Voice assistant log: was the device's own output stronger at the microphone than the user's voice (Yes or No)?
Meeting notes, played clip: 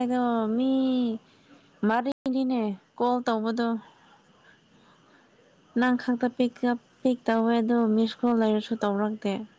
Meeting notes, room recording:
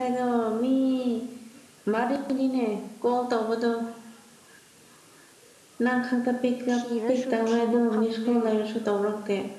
Yes